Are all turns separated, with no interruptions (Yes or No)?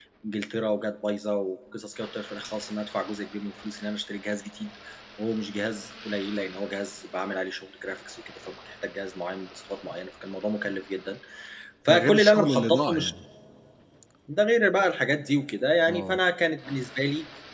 No